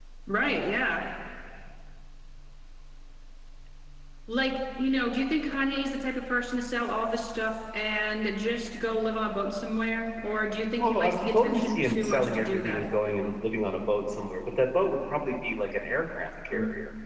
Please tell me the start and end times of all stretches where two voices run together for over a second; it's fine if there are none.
10.8-12.9

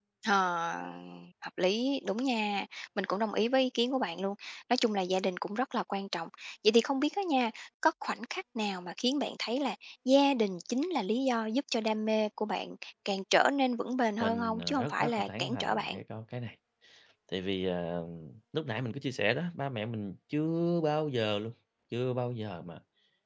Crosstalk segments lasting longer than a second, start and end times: 14.2-16.0

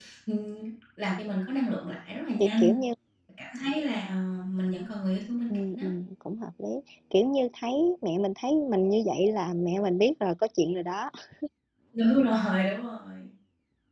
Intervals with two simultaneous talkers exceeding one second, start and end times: none

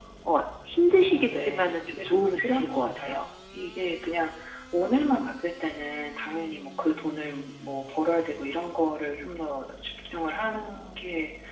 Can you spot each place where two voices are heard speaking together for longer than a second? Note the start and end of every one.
0.9-3.2

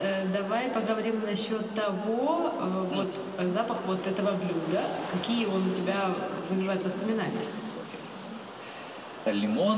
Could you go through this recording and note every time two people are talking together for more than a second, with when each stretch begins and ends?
5.9-7.4

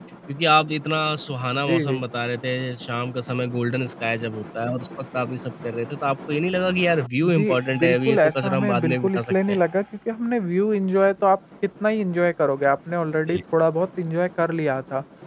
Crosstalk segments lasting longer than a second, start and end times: 7.3-9.6

